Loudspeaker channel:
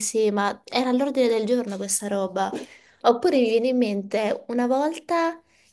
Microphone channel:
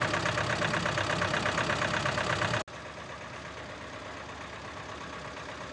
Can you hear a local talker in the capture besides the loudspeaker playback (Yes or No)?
No